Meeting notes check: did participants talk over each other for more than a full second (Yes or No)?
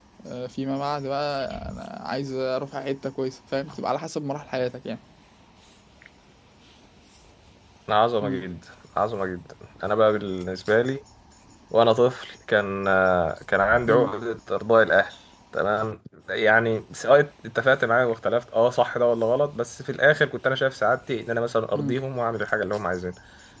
No